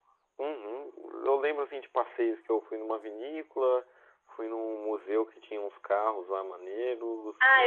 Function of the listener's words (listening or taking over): taking over